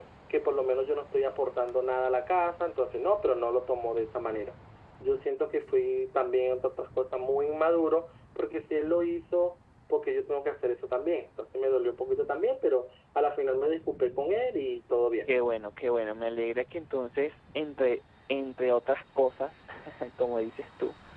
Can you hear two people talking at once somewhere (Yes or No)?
No